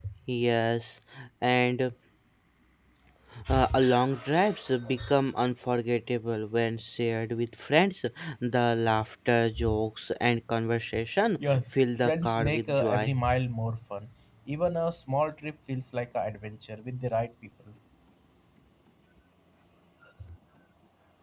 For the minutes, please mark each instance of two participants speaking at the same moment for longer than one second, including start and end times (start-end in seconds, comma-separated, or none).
11.5-13.1